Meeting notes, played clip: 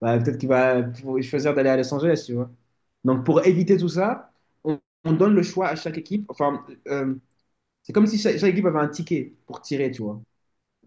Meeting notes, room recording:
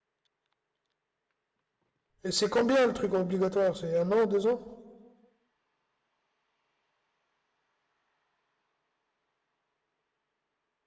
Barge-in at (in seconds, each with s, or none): 2.2 s